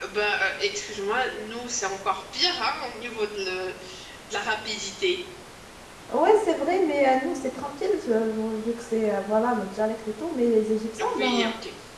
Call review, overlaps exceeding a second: none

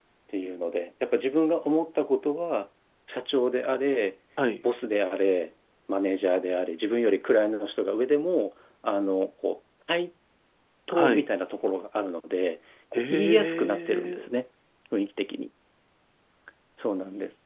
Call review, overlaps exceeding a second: present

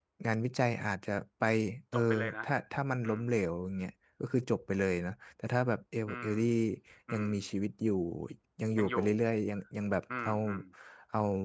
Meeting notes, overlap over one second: none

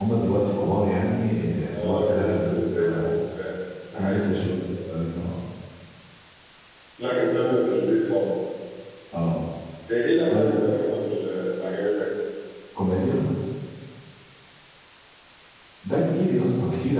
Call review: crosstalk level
present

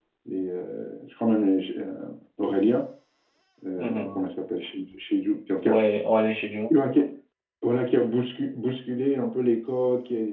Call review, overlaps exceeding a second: none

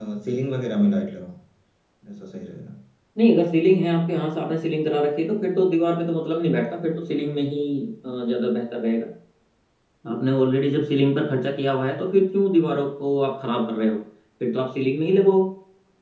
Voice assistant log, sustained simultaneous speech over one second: none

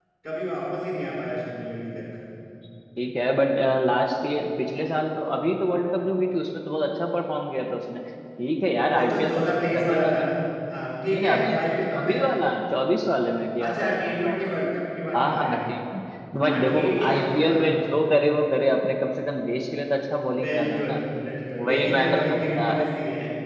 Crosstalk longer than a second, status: present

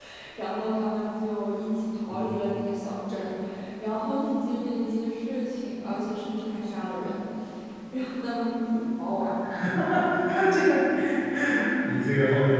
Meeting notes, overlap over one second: none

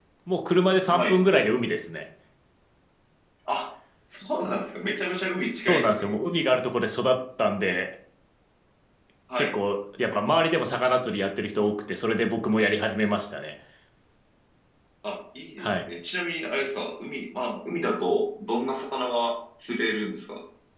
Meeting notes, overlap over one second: none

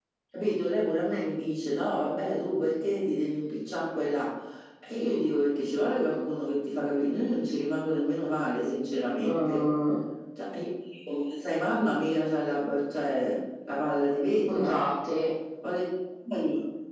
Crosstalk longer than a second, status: none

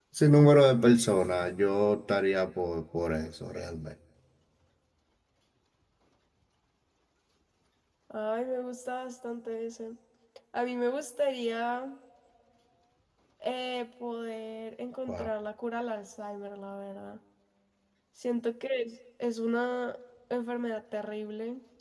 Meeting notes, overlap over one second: none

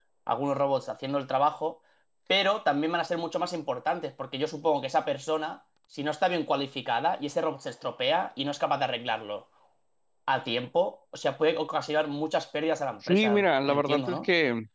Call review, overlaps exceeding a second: present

